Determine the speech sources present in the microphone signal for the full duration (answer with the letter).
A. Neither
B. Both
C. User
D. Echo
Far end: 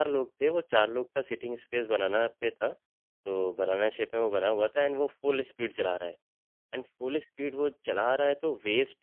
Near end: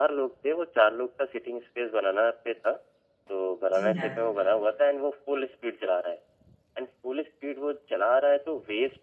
B